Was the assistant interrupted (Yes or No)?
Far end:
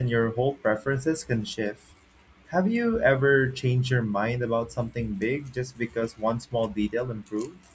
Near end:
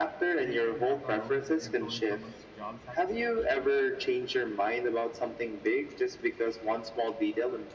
Yes